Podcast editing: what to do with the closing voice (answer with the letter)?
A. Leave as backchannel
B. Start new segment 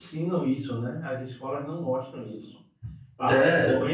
A